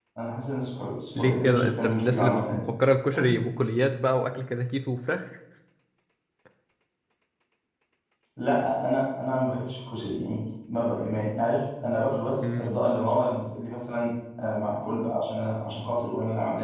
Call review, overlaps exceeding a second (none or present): present